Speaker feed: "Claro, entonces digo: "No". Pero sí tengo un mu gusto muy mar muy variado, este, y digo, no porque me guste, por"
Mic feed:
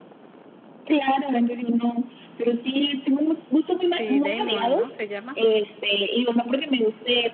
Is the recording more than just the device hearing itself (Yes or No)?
Yes